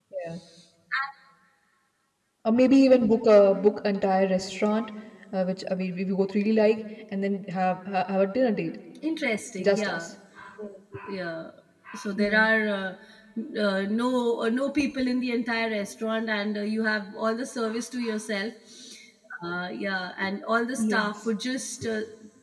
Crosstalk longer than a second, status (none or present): none